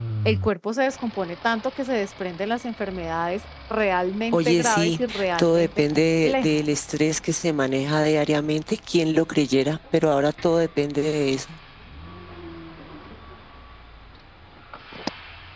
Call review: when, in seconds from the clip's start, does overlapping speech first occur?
4.3 s

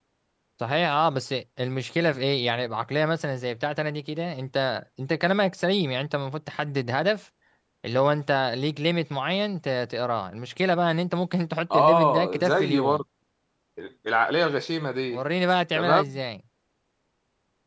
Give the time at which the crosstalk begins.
11.7 s

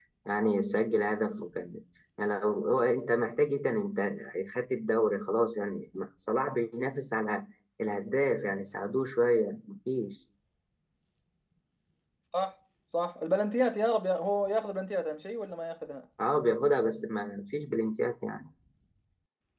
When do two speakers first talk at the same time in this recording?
none

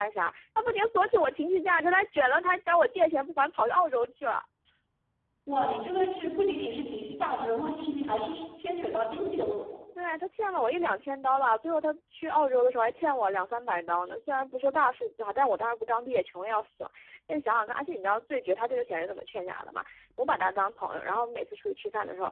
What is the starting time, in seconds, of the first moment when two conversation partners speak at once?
none

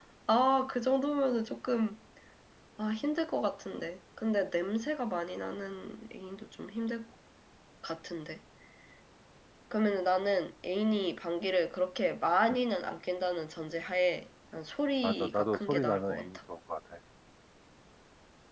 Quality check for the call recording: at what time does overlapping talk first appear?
15.0 s

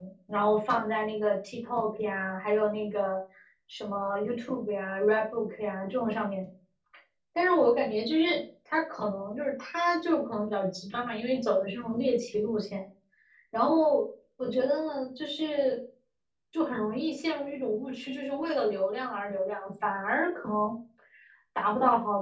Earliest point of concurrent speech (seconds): none

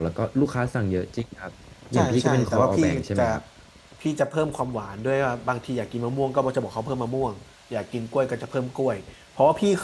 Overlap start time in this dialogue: 1.9 s

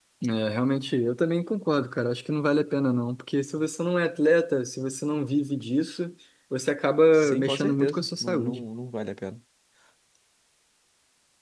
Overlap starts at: 7.1 s

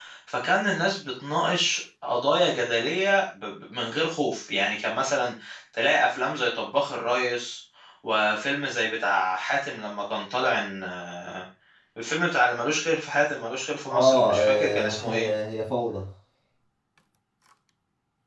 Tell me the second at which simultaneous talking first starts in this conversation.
13.9 s

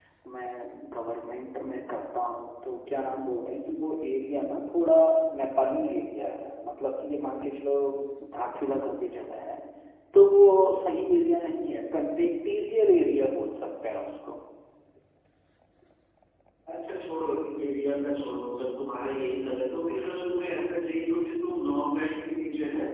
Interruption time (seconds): none

